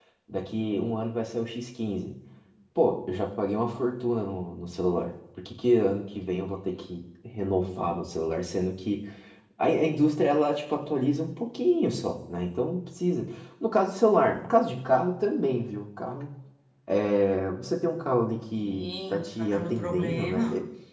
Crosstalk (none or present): present